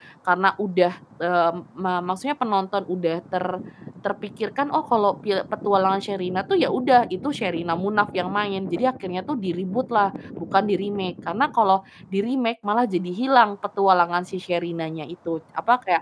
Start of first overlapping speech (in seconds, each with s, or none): none